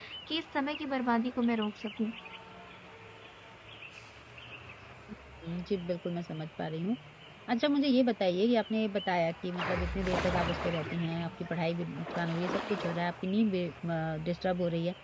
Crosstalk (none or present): none